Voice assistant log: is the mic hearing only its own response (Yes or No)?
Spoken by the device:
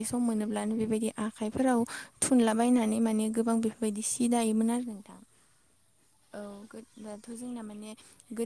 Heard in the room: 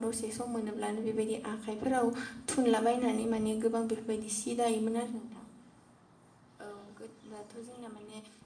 Yes